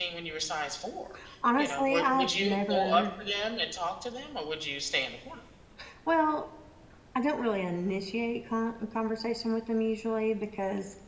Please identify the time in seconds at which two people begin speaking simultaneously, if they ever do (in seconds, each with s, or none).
1.6 s